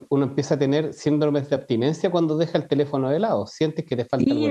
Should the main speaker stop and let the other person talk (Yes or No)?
Yes